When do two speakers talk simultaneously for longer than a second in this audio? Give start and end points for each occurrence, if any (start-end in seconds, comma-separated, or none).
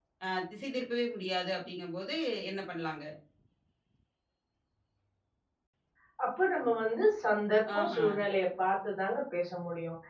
none